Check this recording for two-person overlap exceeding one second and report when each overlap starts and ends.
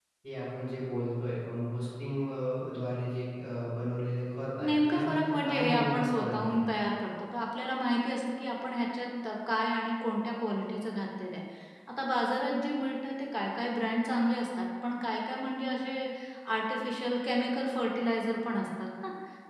4.6-6.6

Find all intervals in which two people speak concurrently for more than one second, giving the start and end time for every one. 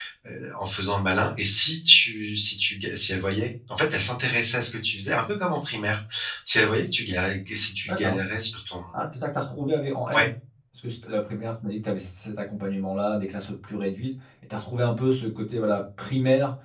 none

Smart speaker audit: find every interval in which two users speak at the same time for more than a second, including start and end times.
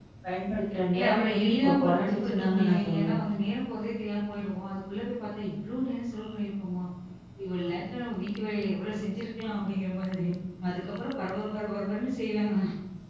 0.9-3.1

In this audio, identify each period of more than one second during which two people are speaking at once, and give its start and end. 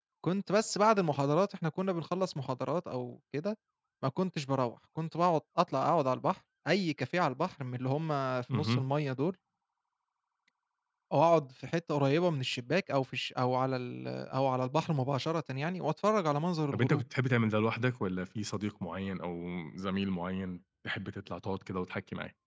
none

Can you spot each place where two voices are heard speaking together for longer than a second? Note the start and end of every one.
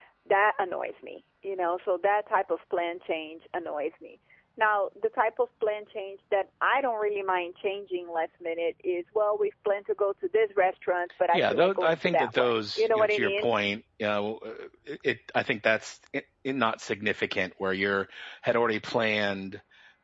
11.3-13.6

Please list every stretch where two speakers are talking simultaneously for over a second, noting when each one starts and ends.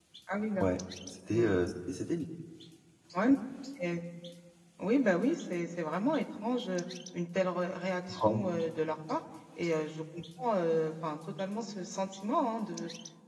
none

